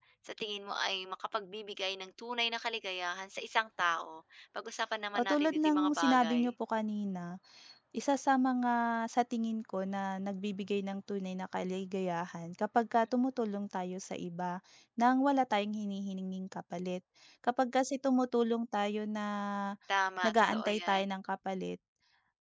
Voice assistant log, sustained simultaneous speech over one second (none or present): present